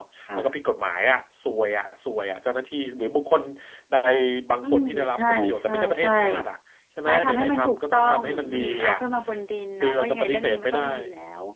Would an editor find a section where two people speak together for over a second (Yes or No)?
Yes